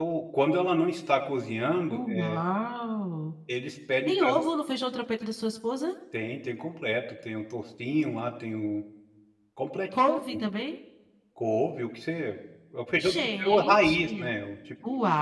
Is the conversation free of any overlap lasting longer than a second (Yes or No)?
No